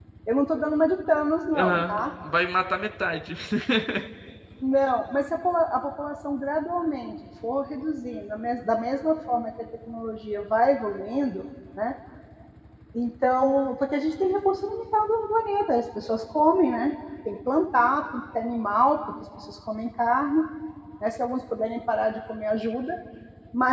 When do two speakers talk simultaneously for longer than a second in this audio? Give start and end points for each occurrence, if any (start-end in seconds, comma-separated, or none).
none